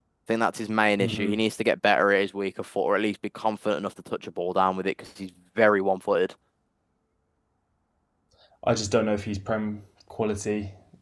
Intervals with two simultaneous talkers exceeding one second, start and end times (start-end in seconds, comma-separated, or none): none